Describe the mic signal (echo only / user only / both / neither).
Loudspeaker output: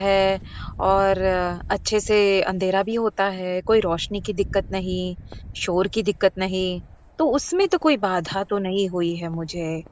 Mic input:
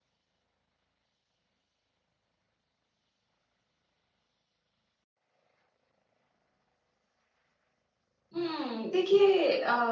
user only